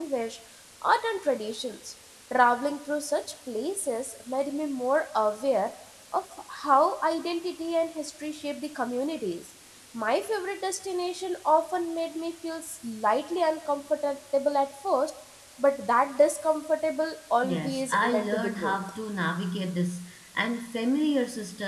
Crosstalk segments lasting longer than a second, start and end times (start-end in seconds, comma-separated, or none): 17.4-18.8